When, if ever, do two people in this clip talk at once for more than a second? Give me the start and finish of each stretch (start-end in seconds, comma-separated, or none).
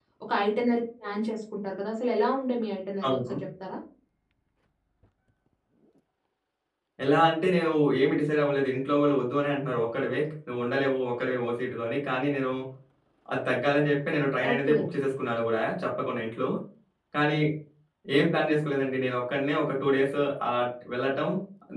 none